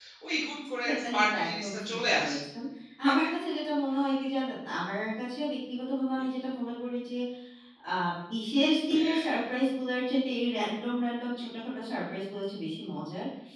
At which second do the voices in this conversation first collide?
0.8 s

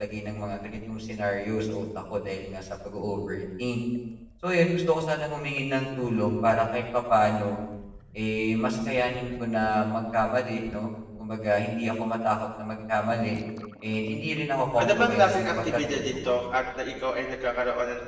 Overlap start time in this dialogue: 14.8 s

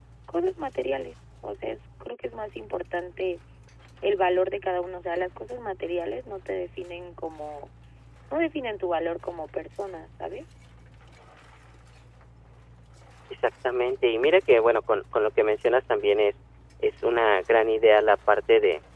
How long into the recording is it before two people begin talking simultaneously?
none

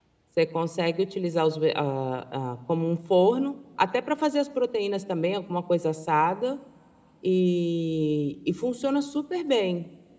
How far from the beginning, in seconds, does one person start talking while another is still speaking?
none

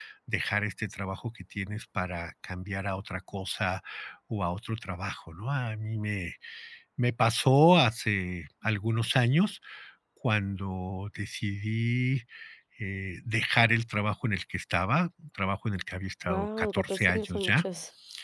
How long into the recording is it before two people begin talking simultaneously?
16.3 s

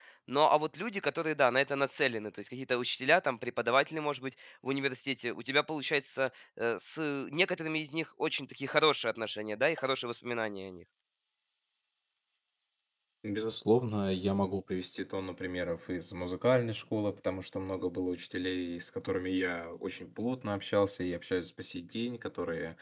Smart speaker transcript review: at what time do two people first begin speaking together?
none

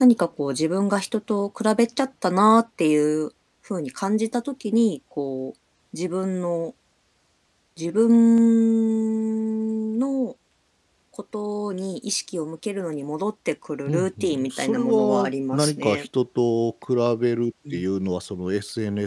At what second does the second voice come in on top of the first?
13.9 s

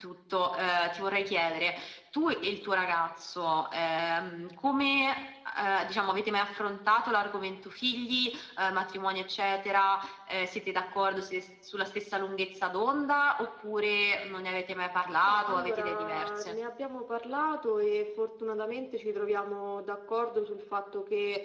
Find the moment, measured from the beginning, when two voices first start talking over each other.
15.2 s

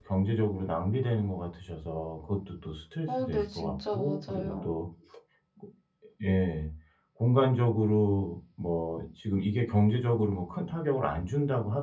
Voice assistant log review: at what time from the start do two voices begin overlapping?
3.1 s

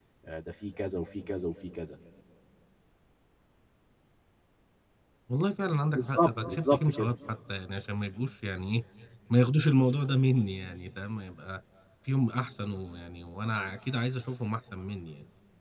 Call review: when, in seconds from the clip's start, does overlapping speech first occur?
5.9 s

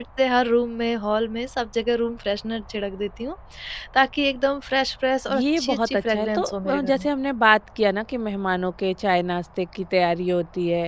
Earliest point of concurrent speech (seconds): 5.3 s

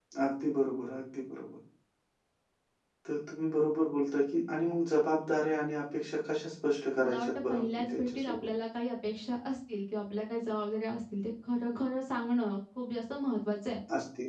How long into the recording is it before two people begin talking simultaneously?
7.0 s

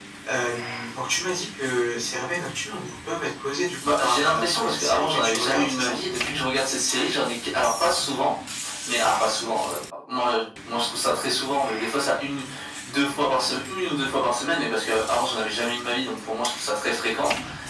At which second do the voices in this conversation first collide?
3.8 s

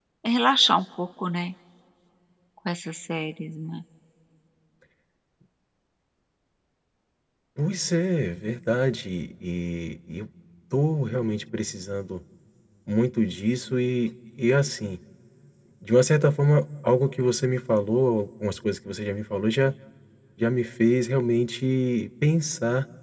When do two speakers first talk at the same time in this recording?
none

